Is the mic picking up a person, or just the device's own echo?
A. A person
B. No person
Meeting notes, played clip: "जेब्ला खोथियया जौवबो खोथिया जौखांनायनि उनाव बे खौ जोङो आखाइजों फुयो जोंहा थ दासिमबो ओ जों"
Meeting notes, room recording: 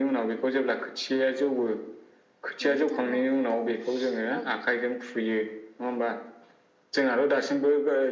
A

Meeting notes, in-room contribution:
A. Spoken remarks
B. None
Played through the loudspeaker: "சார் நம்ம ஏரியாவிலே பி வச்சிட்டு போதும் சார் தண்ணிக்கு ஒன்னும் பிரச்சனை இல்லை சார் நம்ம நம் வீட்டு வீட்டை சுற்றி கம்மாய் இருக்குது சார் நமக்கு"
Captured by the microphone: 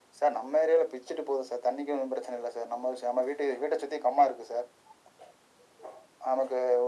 B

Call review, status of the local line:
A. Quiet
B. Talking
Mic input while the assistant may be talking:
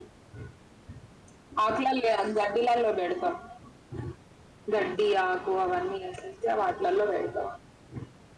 B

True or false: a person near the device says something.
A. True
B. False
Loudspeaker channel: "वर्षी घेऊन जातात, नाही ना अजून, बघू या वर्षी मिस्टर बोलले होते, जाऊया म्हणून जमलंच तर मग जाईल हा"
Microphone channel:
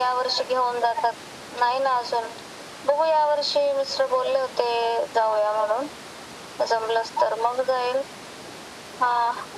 B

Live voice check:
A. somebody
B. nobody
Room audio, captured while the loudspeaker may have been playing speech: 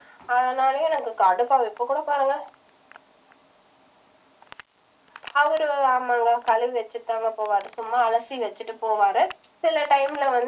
B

